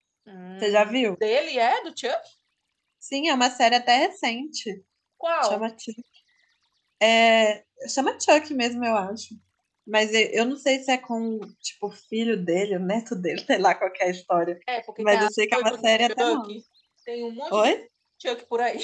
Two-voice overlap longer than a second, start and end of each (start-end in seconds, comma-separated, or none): 15.0-16.6